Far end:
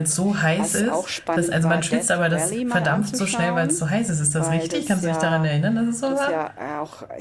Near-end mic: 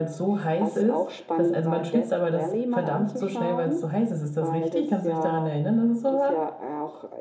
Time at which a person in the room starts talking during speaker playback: none

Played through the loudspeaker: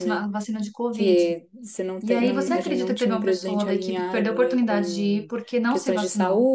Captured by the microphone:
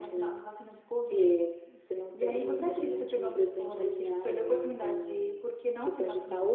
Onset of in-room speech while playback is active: none

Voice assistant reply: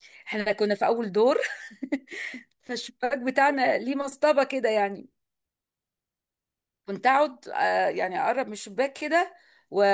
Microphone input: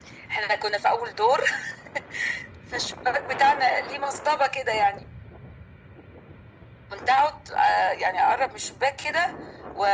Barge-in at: none

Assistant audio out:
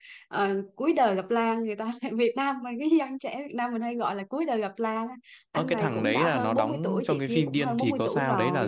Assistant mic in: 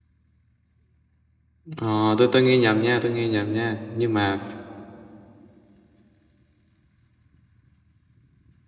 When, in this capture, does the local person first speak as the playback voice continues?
2 s

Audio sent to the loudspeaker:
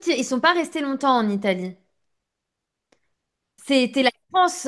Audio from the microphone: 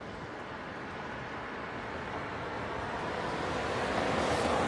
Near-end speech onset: none

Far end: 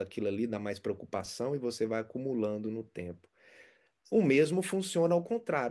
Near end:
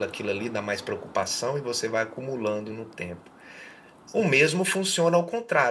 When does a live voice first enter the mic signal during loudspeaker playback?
none

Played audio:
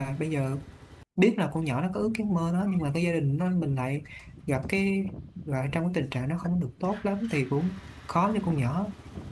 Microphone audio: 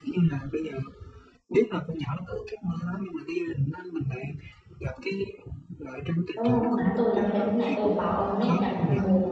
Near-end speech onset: 6 s

